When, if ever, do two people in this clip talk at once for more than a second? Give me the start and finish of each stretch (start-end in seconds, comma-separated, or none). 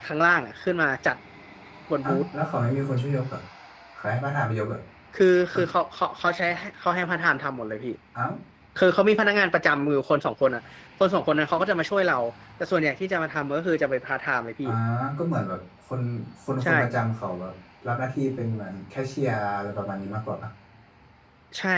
none